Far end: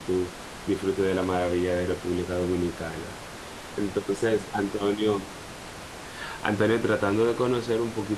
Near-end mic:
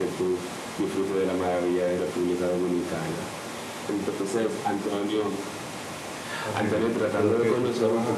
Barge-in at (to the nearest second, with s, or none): 6 s